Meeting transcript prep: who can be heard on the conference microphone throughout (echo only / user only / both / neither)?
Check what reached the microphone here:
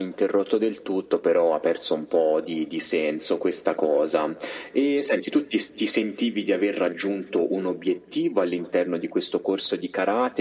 echo only